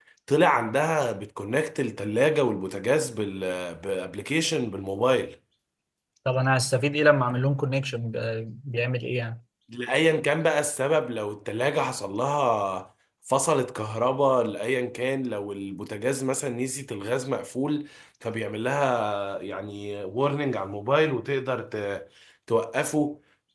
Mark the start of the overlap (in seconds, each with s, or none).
none